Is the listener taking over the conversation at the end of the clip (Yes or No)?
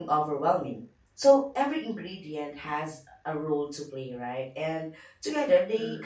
No